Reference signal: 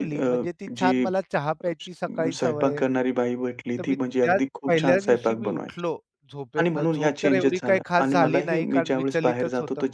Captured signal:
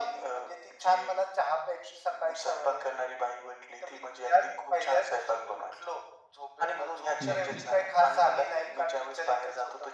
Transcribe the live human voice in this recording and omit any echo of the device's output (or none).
हं, हं.